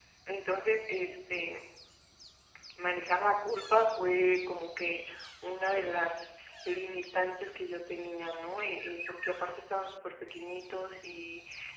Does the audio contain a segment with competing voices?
No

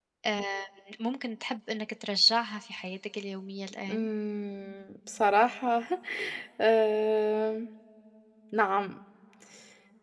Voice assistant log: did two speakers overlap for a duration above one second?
No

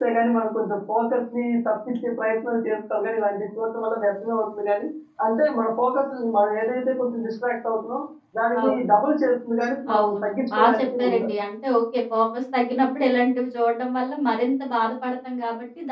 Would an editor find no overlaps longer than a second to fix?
No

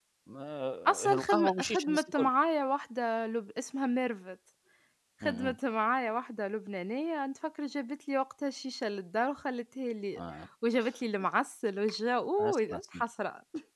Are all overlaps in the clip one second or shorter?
No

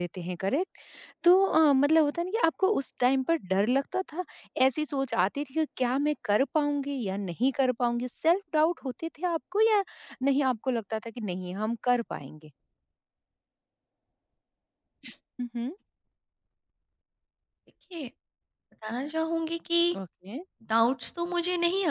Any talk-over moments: No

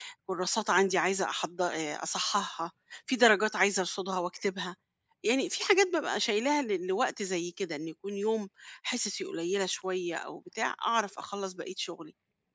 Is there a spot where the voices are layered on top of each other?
No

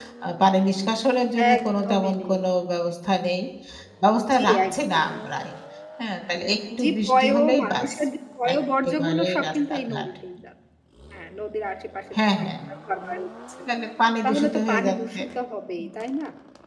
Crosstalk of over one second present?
Yes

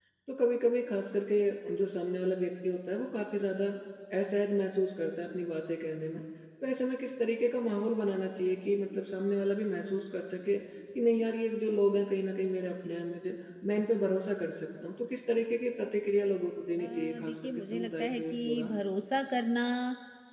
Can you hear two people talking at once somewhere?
Yes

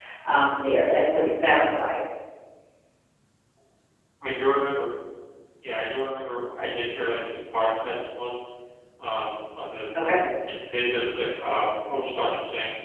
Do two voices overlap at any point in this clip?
No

